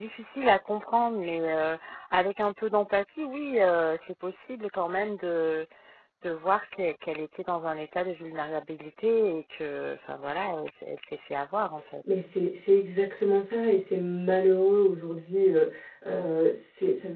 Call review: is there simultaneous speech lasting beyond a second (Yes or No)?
No